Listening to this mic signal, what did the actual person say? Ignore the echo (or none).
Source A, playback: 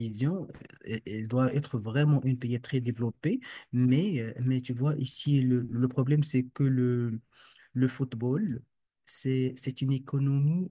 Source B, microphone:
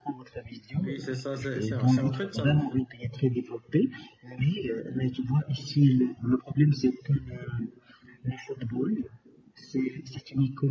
Oui, c'est ça, c'est c'est- c'est en fait ça le foot.